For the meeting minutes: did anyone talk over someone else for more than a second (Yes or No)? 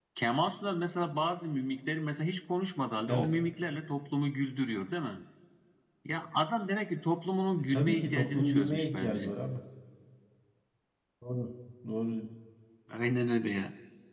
Yes